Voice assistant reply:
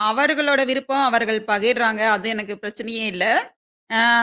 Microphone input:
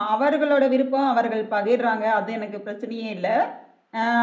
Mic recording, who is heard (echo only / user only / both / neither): echo only